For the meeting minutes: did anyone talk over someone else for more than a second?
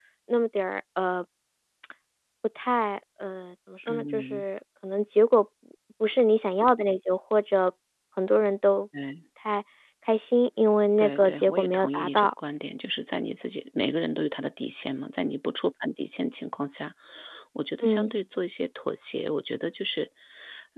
Yes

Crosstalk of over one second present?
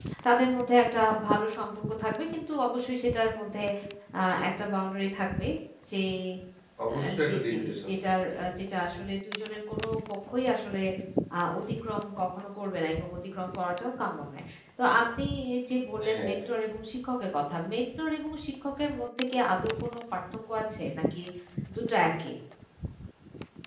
Yes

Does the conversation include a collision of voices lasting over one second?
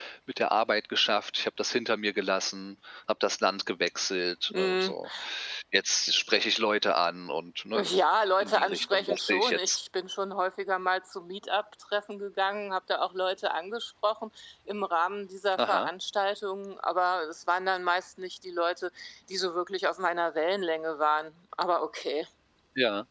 Yes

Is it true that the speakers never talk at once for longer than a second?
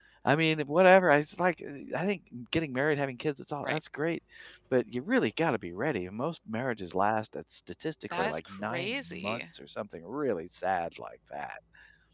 No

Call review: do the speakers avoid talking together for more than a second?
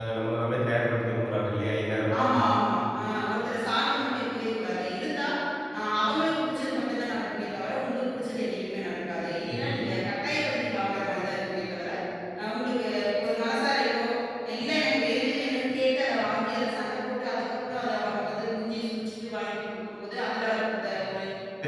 Yes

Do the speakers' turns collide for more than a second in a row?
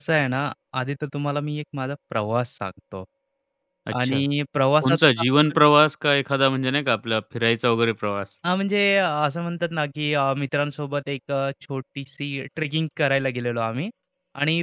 No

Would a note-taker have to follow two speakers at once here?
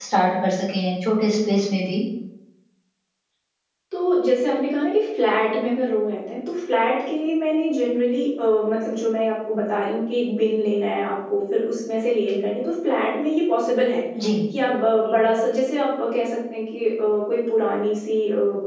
No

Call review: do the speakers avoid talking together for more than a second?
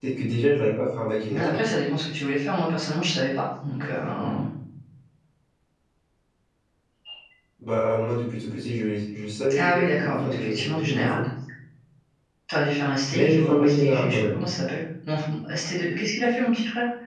No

